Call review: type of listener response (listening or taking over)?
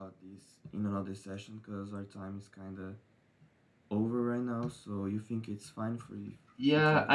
taking over